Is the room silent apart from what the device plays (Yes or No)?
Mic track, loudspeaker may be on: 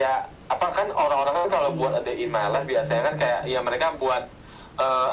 No